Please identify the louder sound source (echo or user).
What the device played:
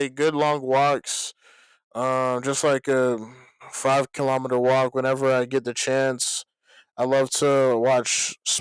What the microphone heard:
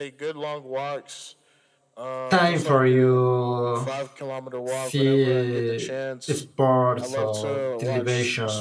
user